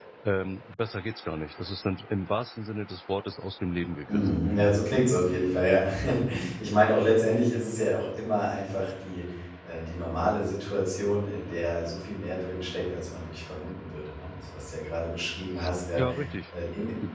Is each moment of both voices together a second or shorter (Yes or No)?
Yes